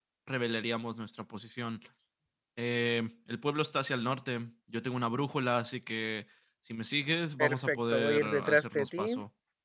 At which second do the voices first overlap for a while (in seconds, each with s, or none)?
7.4 s